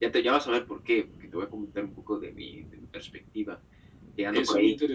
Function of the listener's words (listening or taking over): taking over